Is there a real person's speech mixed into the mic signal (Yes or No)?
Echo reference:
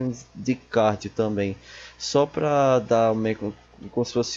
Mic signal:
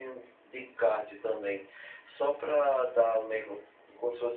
No